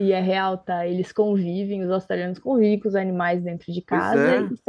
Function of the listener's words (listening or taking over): listening